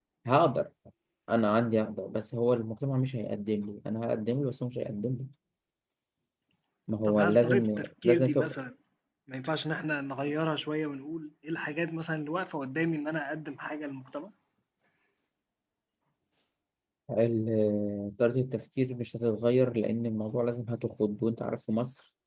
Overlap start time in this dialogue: 7.1 s

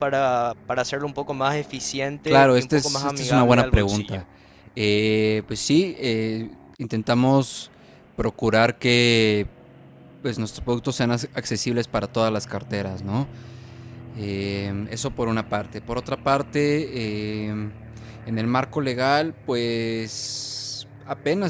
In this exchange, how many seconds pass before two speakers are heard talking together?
2.3 s

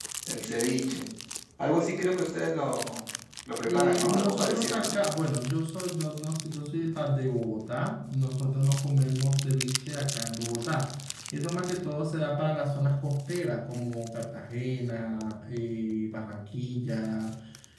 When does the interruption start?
3.7 s

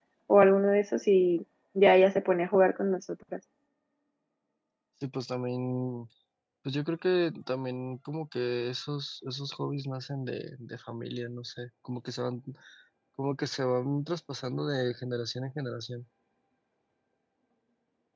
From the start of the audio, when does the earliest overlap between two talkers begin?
none

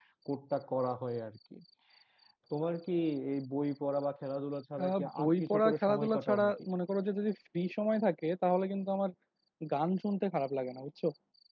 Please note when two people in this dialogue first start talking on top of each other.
4.8 s

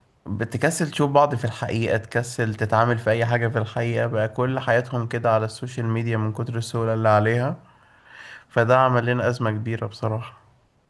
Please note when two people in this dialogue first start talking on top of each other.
none

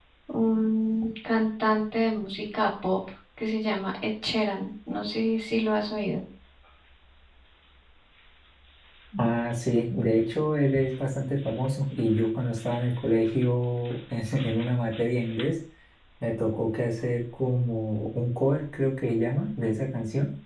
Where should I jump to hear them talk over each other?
none

